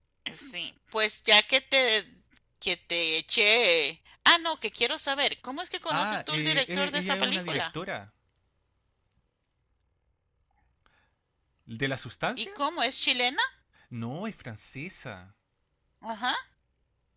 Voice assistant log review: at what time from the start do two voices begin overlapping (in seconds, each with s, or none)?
5.9 s